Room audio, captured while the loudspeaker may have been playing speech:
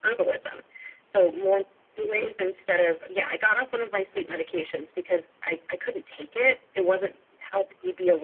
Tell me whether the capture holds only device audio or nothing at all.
Yes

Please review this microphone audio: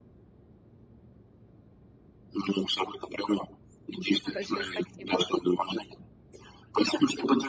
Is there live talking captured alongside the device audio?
Yes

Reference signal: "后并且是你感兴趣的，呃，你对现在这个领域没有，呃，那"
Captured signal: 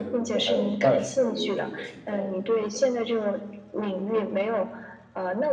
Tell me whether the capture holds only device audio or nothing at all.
No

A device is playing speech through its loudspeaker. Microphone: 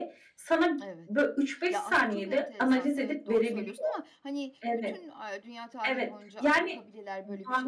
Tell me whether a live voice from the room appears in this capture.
Yes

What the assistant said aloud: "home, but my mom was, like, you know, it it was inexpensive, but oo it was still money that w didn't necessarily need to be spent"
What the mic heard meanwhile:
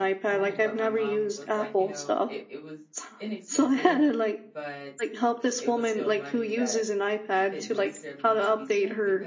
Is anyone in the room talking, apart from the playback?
Yes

